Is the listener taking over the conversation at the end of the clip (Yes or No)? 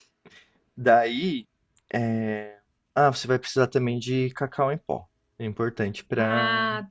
No